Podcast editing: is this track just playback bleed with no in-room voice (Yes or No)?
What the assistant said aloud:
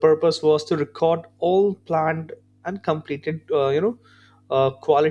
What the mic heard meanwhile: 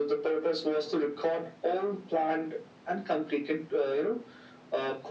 Yes